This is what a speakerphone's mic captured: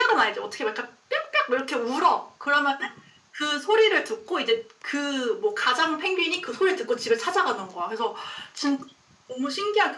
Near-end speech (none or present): none